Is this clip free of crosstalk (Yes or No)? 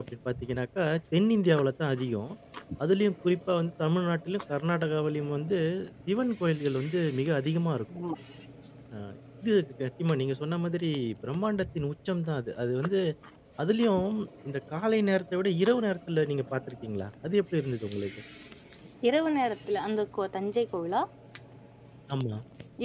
Yes